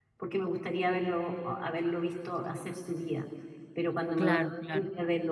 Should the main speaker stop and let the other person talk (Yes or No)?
No